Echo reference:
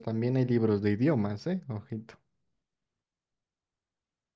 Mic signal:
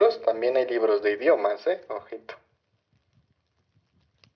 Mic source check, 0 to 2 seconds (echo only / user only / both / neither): echo only